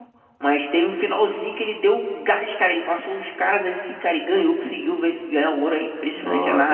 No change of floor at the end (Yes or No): No